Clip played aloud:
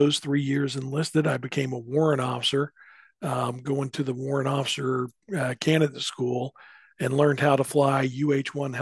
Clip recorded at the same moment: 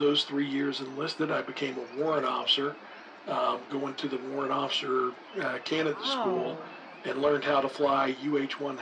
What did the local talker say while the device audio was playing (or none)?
Wow.